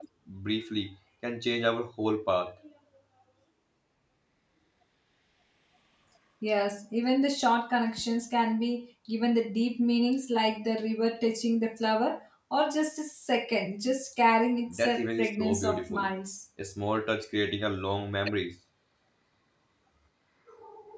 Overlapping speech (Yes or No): Yes